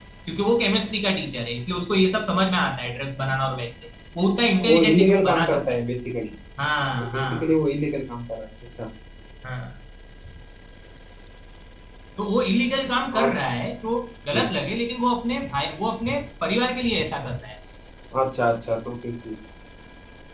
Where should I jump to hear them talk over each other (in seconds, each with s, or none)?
4.6 s